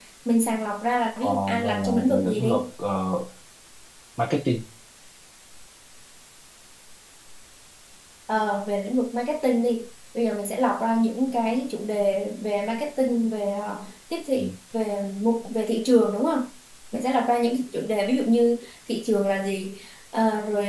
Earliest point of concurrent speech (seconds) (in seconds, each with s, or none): 1.2 s